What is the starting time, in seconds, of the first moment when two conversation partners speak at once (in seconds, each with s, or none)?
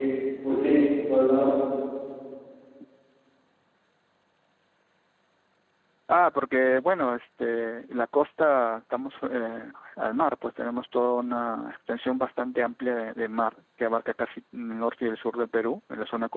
none